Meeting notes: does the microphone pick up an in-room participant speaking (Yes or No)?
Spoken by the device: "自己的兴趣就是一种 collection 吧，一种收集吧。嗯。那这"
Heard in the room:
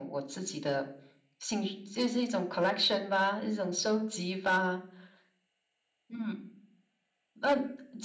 No